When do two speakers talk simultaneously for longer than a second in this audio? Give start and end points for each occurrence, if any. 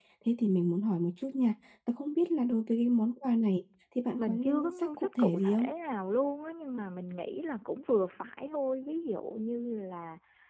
4.2-5.7

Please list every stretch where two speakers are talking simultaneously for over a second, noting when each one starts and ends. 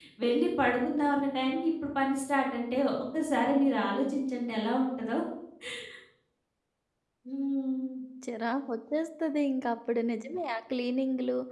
none

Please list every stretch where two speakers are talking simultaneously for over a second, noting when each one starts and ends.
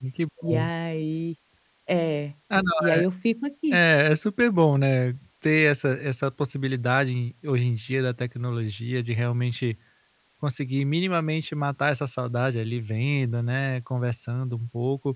none

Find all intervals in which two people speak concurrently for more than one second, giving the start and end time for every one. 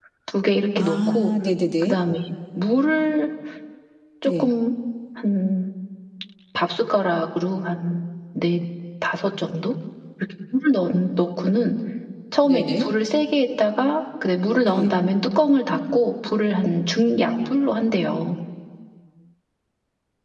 none

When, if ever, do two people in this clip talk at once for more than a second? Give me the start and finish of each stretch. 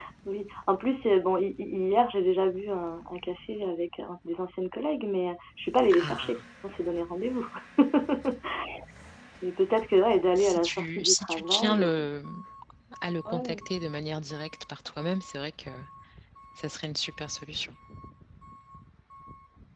10.3-12.1

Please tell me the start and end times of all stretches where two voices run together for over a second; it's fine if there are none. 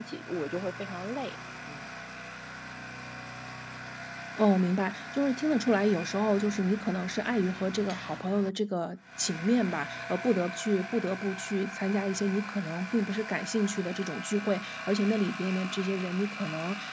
none

